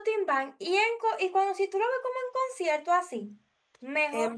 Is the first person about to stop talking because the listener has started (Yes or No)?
Yes